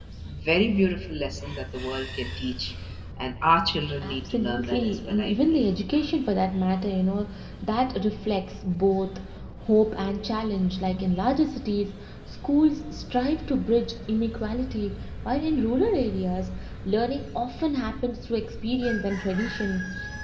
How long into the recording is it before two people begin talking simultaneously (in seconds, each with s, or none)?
4.0 s